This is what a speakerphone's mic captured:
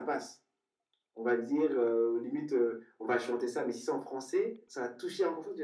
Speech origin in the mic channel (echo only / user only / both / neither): echo only